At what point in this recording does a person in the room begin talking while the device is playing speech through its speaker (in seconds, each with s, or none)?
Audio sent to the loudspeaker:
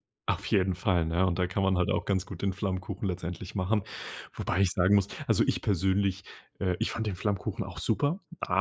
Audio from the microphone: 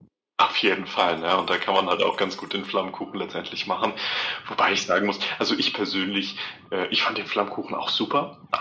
none